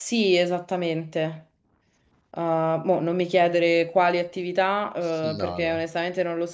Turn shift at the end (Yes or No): No